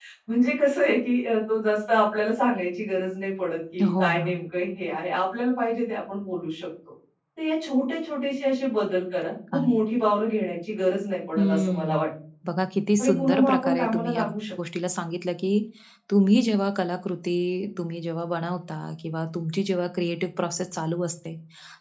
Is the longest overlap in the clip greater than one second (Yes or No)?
Yes